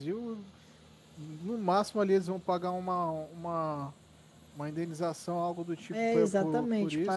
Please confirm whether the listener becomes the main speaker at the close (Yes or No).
Yes